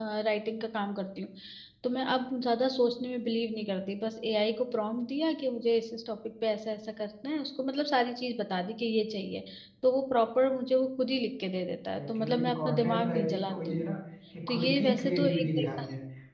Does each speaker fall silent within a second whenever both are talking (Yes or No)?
No